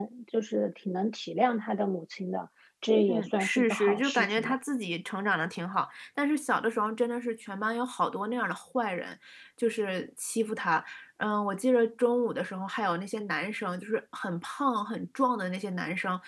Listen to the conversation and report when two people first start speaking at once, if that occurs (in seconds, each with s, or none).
3.1 s